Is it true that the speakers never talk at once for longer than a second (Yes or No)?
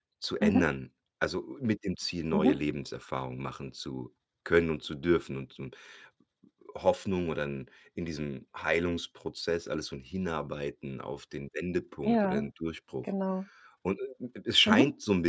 Yes